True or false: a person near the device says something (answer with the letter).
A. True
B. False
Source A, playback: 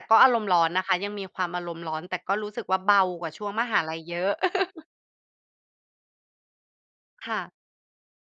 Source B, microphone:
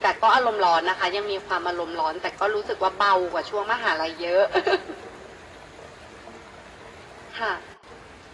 B